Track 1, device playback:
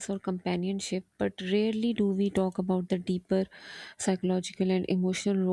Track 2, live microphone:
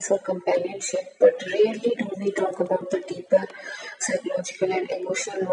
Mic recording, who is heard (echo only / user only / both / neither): echo only